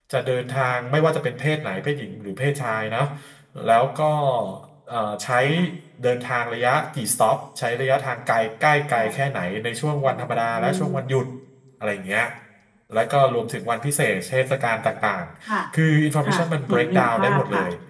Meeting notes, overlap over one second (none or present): present